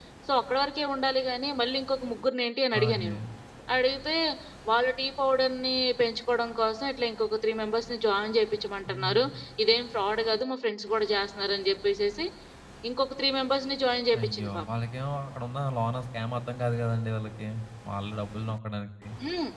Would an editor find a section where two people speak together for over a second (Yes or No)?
No